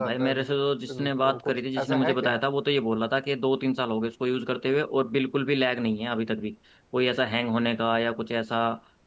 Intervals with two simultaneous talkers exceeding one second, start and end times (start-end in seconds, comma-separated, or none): 0.9-2.4